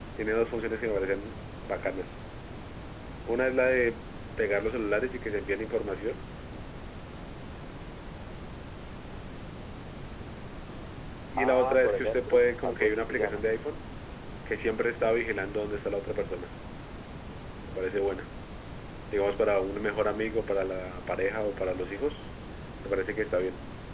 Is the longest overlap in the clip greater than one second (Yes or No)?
Yes